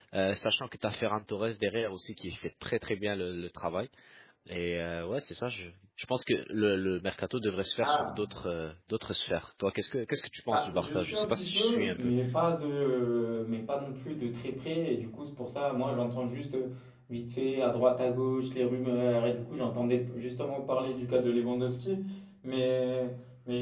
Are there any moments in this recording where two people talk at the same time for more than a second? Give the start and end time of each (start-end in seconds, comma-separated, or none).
10.5-12.1